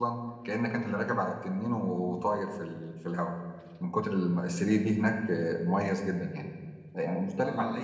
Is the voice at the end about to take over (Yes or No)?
No